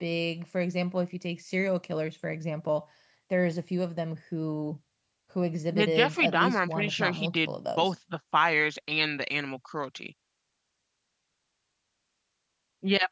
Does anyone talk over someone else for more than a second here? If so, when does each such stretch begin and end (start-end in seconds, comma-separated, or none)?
5.7-7.9